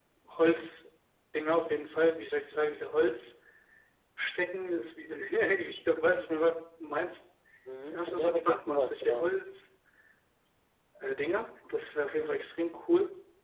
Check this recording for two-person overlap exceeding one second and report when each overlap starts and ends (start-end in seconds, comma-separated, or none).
7.9-9.2